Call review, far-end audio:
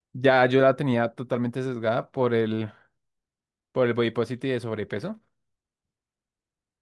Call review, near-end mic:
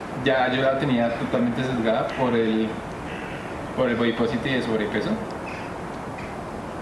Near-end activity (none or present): none